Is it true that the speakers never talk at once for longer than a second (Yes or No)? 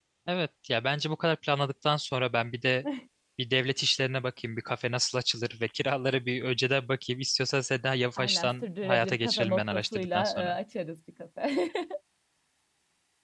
No